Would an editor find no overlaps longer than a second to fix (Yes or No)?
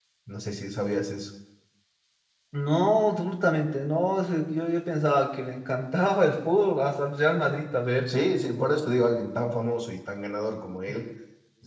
Yes